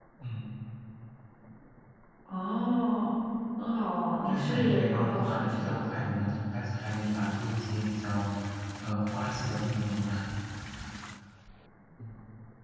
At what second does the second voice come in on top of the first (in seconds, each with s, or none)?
4.3 s